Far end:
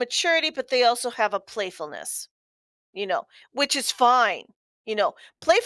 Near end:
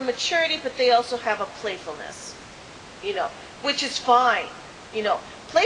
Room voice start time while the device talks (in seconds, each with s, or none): none